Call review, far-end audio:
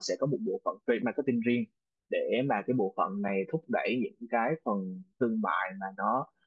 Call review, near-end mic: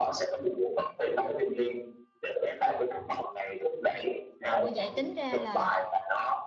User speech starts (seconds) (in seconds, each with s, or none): 4.5 s